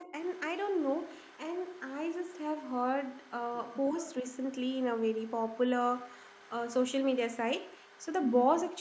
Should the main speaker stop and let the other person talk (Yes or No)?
No